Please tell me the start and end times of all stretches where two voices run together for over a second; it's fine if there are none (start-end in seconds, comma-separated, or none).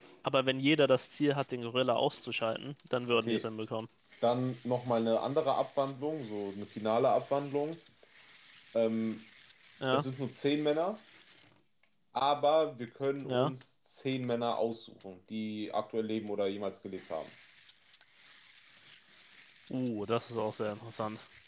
none